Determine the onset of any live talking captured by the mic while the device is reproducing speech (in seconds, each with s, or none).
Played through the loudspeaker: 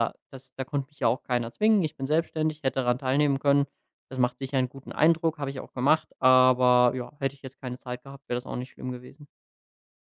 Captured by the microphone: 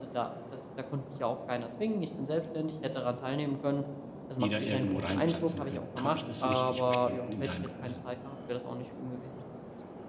4.4 s